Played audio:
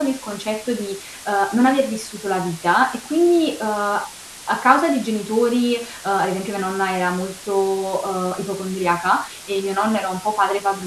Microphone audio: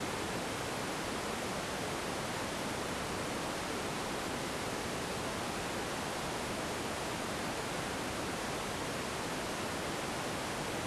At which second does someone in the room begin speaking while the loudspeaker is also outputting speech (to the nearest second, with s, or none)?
none